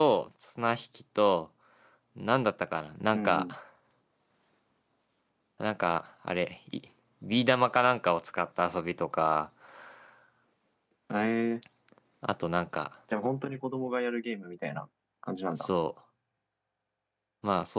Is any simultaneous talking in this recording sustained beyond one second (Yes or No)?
No